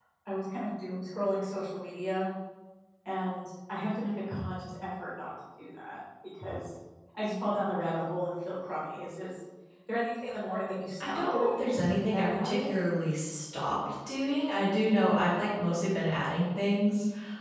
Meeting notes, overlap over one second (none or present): present